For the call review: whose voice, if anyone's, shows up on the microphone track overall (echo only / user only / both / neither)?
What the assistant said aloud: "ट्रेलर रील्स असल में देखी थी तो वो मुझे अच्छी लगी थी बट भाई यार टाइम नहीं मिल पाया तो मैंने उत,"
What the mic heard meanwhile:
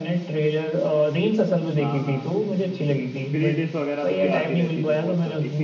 both